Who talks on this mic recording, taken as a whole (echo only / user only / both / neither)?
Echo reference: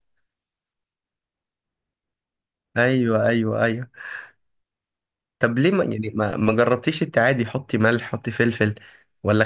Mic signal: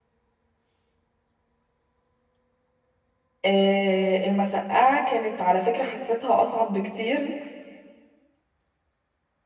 user only